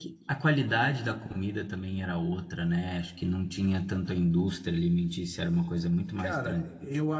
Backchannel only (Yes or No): No